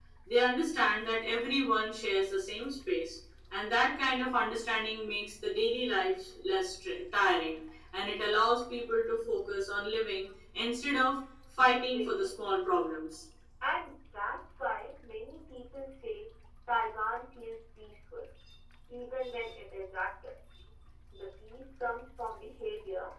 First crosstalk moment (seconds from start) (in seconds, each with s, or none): 11.7 s